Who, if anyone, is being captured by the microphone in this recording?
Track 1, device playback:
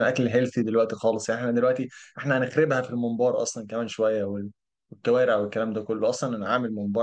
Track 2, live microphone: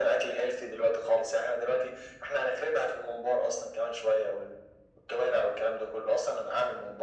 echo only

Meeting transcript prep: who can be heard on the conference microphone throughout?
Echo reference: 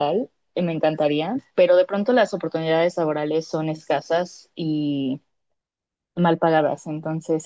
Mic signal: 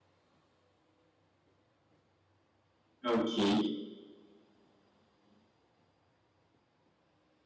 user only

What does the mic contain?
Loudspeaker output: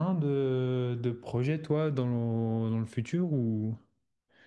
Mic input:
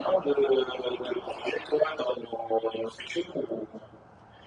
echo only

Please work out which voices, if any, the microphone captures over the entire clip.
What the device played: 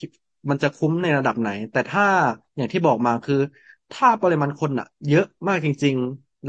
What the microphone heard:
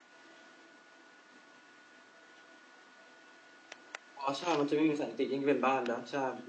user only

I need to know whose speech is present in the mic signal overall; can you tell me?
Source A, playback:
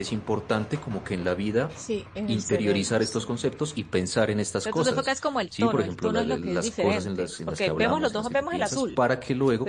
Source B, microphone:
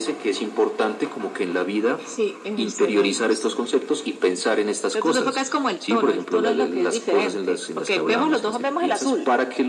echo only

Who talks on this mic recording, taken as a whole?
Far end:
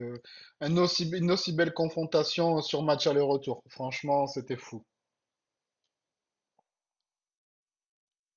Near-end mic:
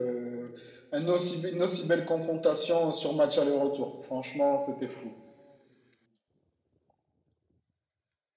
echo only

